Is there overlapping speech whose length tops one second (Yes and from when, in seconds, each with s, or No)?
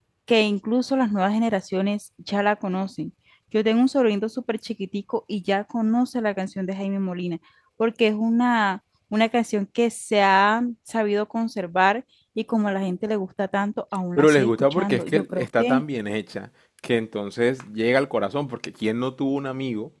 Yes, from 14.2 s